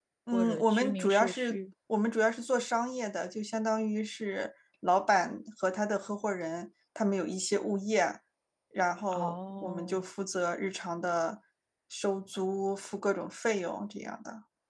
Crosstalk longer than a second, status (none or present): present